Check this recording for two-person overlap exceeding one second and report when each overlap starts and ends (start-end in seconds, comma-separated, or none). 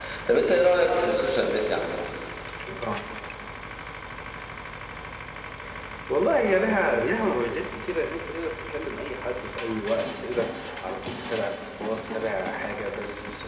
none